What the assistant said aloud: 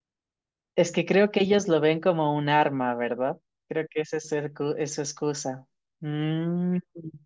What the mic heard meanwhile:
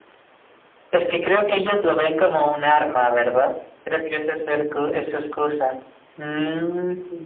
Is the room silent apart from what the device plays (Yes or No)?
Yes